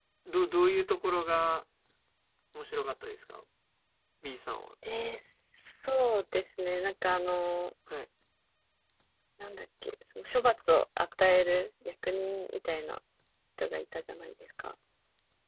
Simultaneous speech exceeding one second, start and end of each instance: none

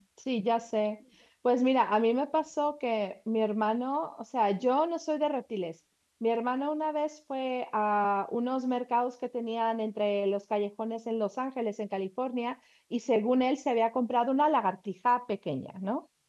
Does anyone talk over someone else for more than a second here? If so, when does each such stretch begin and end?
none

